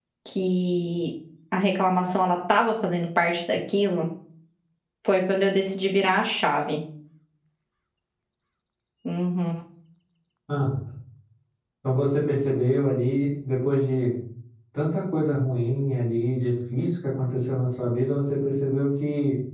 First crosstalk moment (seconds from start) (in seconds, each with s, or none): none